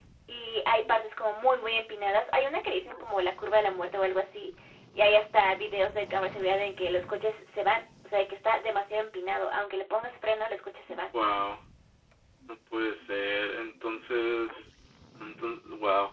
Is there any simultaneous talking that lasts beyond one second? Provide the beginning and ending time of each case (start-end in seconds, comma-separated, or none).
none